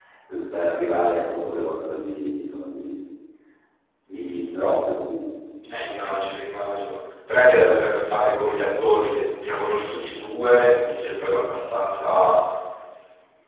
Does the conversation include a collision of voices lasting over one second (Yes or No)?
No